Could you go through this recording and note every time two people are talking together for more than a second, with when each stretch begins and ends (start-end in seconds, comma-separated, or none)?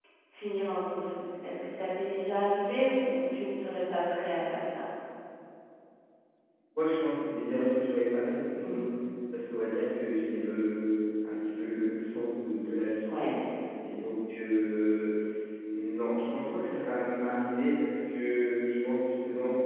none